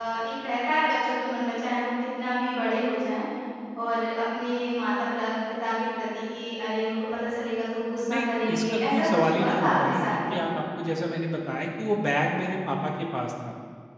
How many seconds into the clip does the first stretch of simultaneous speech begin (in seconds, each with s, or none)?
8.1 s